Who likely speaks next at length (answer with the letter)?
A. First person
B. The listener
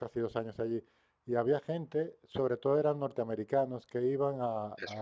A